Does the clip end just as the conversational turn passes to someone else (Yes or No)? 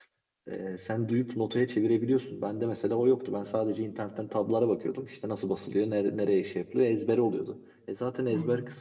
No